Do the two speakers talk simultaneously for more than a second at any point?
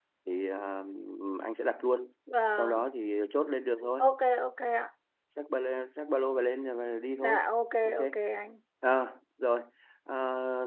No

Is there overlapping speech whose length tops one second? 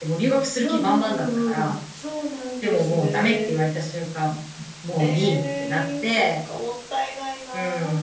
Yes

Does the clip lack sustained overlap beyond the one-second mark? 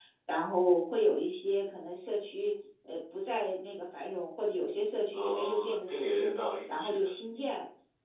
No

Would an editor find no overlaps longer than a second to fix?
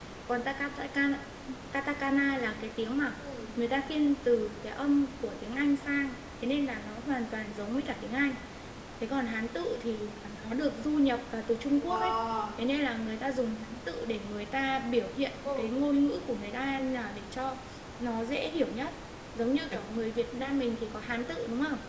Yes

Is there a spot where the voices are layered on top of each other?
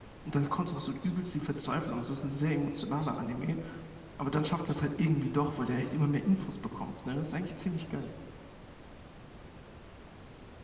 No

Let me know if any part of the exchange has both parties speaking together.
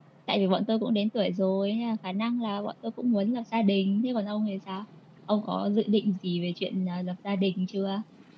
No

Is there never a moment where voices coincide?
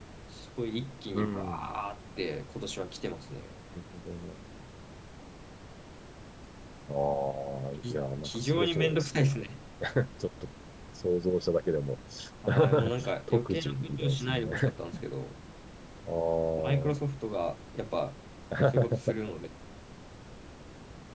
No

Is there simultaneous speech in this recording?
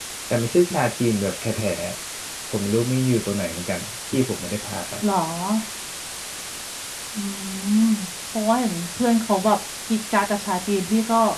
No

